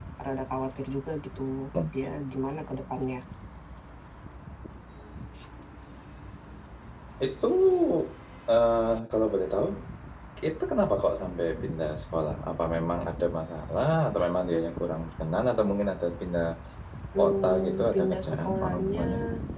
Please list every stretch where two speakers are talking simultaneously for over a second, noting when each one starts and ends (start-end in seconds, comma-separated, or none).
17.2-19.0